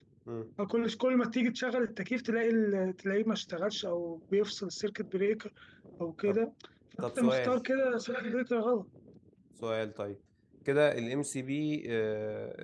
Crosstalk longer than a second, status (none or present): none